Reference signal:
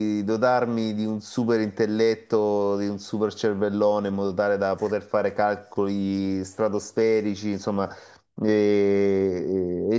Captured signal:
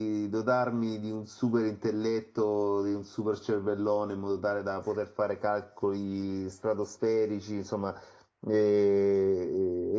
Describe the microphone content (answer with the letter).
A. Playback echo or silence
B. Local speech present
A